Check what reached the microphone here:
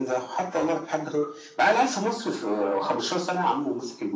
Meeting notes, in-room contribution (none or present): none